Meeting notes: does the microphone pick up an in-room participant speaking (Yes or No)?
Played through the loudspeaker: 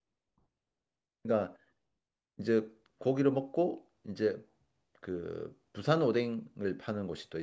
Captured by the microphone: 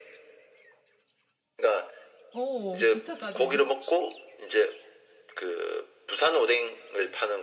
Yes